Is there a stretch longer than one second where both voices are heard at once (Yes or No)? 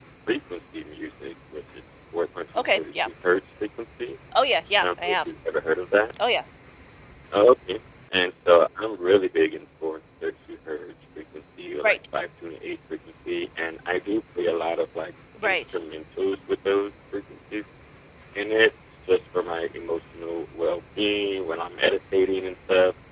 No